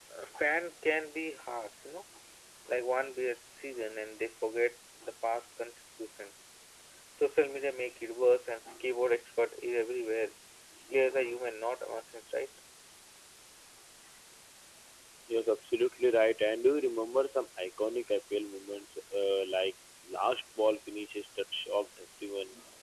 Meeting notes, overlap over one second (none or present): none